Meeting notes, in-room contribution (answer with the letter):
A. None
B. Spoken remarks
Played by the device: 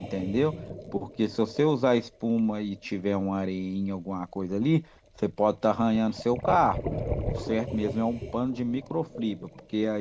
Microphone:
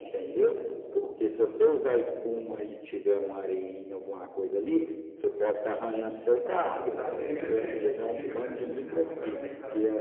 B